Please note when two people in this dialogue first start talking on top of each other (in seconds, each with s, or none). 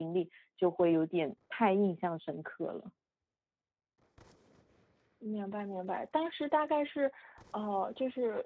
none